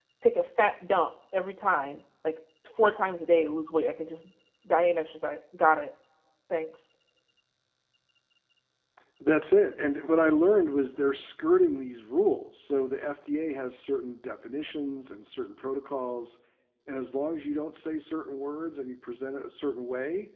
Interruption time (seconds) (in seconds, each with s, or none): none